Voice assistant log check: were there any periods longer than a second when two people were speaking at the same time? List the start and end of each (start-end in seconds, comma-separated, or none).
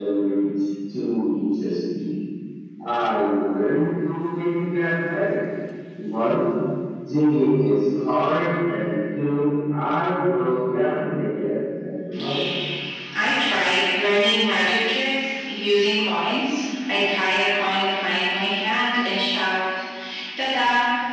none